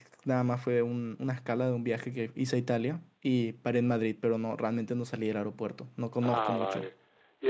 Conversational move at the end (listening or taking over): taking over